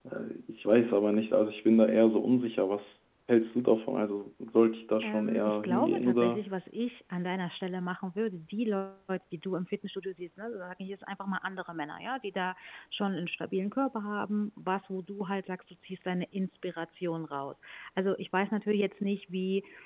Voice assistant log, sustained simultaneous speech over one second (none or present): present